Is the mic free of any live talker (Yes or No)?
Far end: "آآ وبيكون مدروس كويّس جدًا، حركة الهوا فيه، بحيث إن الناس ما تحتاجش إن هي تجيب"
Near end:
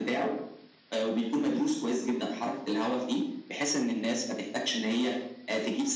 Yes